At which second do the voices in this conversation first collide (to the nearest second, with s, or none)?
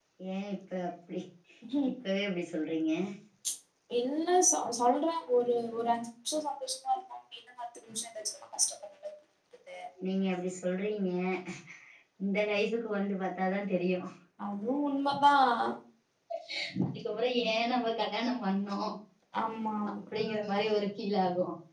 none